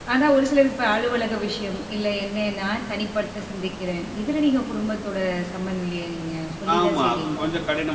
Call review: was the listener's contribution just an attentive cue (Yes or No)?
No